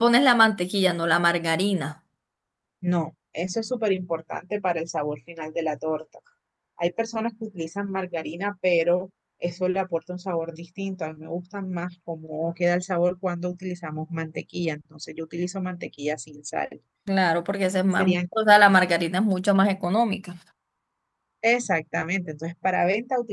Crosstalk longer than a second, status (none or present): none